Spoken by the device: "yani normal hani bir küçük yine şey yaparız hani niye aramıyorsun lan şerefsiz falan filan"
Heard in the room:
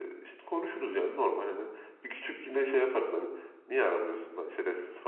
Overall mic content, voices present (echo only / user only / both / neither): echo only